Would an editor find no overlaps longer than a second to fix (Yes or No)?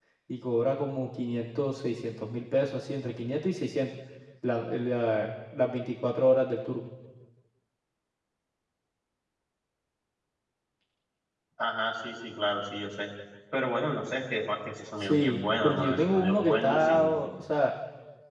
No